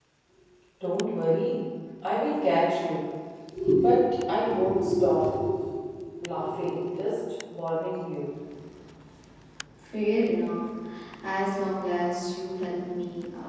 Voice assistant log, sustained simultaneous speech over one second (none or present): none